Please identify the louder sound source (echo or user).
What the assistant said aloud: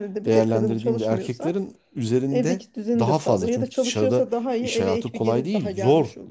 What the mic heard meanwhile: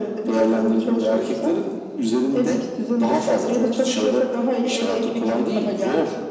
echo